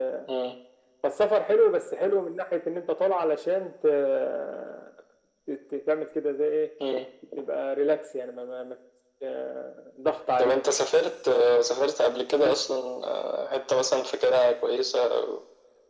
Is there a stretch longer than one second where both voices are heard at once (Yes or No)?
No